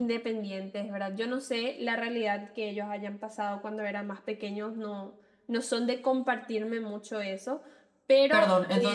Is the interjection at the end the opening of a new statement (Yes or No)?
Yes